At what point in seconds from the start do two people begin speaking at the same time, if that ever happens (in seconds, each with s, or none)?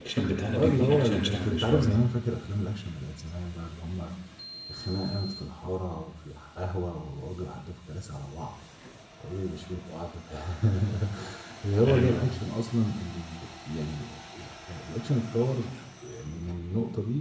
0.5 s